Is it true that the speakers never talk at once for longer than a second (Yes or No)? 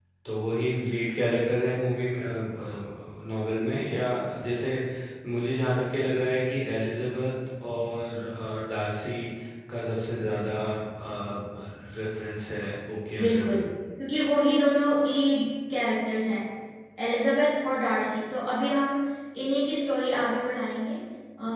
Yes